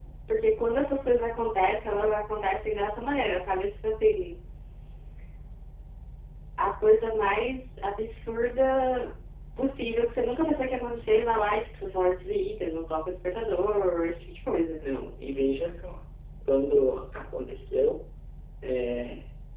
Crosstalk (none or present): none